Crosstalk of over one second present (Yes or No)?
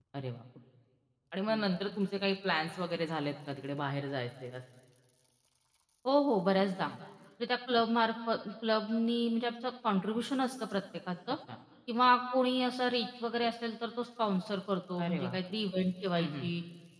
No